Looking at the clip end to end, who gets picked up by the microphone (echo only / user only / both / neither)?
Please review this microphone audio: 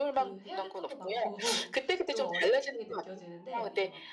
both